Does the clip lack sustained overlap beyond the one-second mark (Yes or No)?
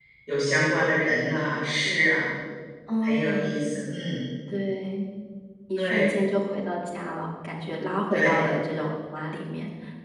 Yes